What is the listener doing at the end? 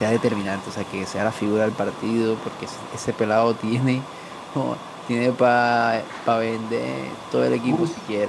taking over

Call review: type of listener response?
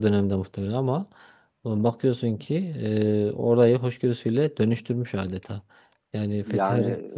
listening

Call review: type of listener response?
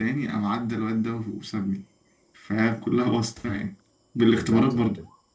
taking over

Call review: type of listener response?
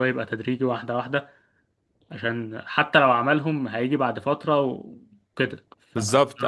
taking over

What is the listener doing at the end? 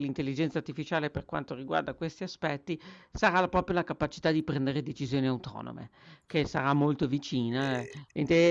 listening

